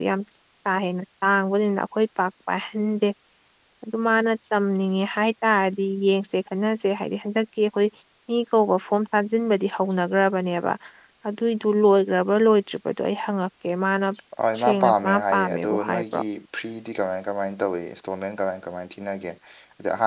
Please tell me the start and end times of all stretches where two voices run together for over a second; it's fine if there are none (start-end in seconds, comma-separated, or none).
14.6-16.2